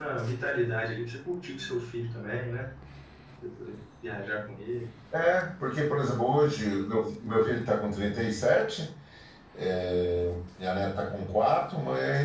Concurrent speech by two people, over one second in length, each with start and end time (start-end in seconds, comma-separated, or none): none